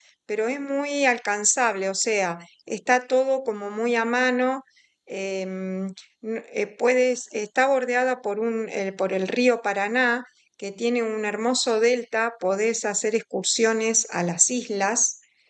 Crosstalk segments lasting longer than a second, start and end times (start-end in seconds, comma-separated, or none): none